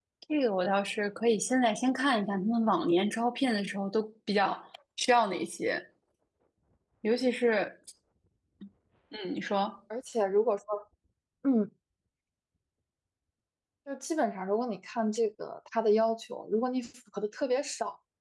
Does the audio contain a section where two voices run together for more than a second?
No

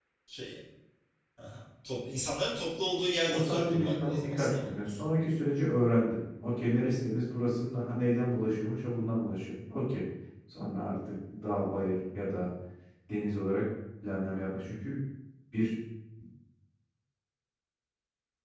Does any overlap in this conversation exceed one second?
Yes, from 3.3 s

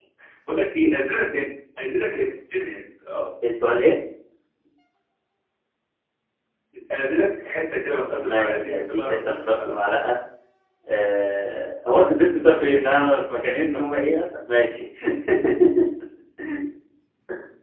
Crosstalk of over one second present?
Yes, from 8.1 s

